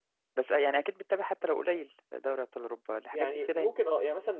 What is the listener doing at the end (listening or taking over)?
taking over